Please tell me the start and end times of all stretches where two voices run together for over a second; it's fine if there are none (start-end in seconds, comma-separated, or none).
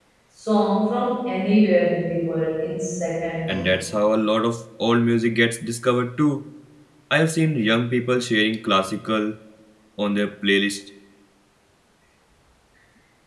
none